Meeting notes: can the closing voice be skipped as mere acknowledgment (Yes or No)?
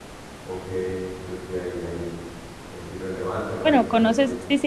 No